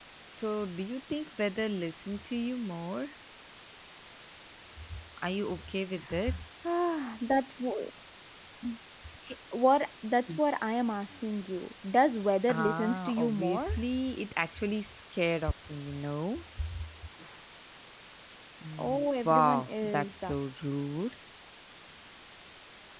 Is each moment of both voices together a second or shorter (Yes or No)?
No